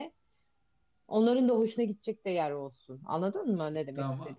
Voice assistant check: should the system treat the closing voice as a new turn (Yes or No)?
Yes